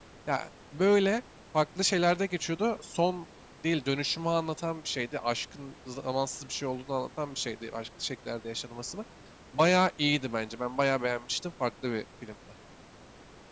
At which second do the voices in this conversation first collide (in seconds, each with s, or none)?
none